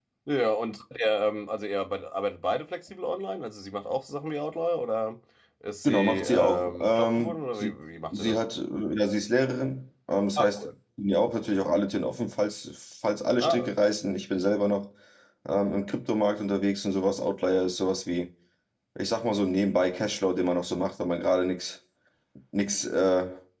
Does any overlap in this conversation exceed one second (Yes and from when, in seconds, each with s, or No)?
Yes, from 5.8 s